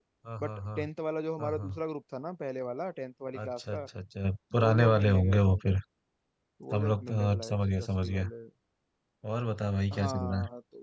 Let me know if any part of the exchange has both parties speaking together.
Yes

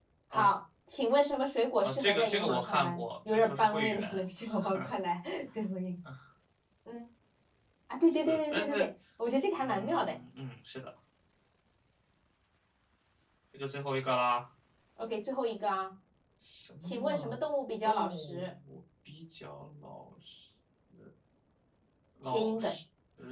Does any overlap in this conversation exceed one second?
Yes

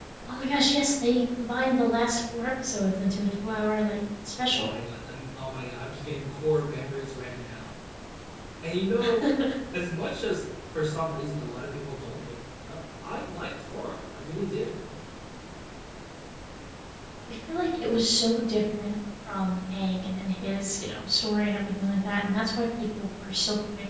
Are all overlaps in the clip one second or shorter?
Yes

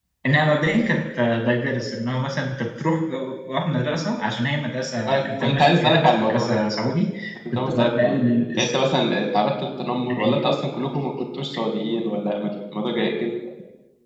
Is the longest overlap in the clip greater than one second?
Yes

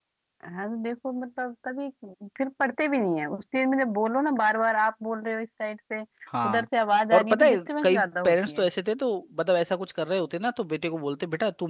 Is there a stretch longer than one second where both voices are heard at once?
Yes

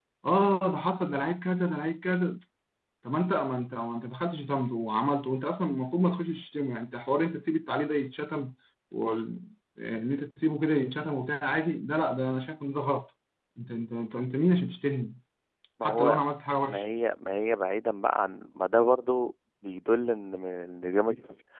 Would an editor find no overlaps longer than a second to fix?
Yes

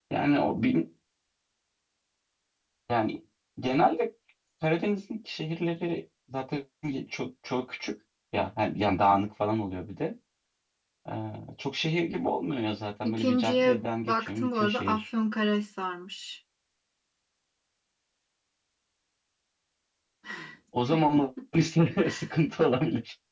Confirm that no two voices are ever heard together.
No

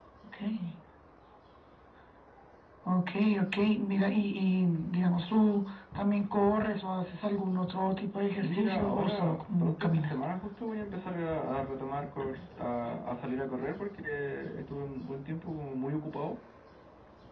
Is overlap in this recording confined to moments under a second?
No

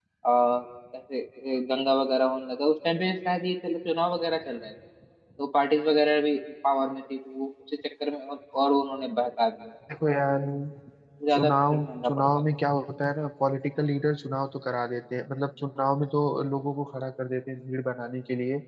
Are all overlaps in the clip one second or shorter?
No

